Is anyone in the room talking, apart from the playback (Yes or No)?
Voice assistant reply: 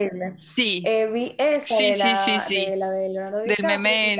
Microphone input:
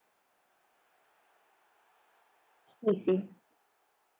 Yes